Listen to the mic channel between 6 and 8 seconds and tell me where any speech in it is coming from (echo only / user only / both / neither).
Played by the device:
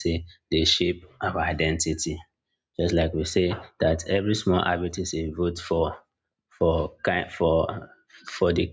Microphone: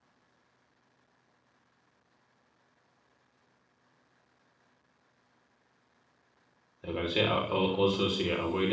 user only